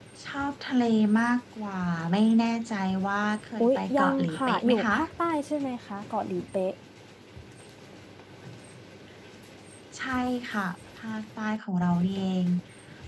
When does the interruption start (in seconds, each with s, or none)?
3.6 s